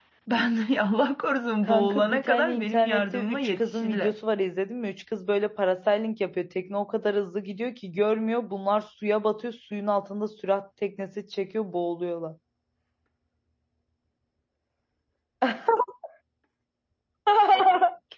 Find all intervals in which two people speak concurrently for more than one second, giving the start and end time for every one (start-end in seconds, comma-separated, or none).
1.6-4.1